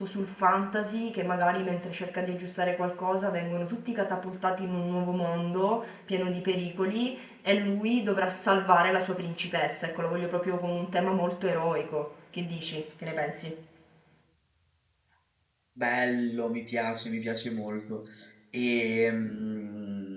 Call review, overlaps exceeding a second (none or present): none